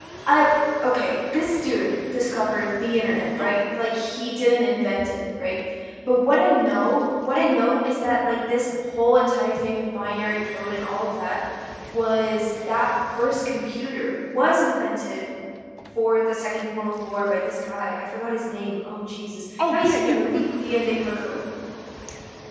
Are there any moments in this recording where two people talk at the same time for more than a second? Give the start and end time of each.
19.7-20.9

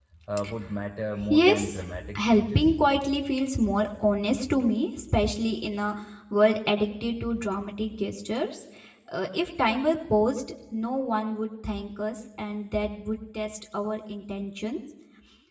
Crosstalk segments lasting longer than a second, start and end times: 1.3-2.7

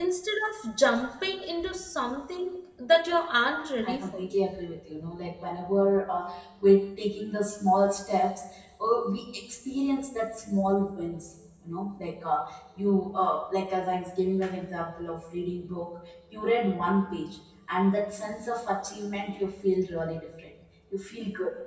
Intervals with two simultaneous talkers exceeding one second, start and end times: none

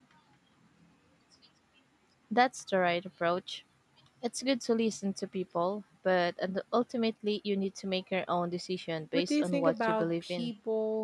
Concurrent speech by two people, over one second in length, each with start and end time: 9.1-10.5

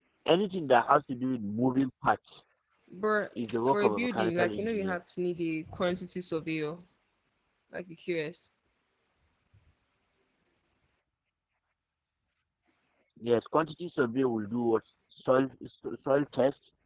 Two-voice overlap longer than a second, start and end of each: 3.4-5.0

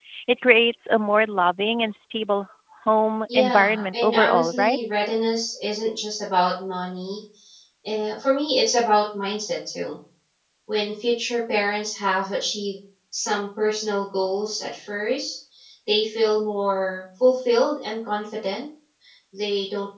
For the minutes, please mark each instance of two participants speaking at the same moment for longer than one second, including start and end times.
3.3-4.8

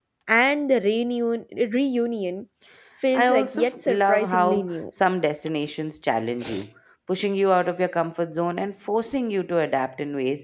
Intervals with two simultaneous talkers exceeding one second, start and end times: 3.1-4.6

